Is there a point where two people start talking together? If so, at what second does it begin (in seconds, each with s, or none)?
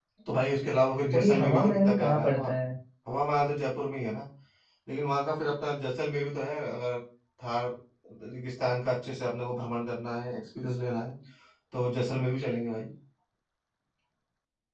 1.1 s